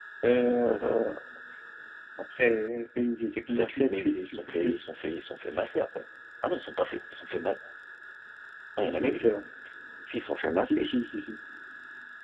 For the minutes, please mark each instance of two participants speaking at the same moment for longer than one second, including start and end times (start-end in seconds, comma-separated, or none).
3.5-4.8